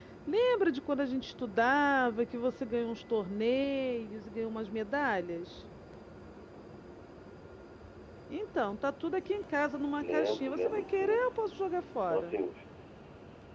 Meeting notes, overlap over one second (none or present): present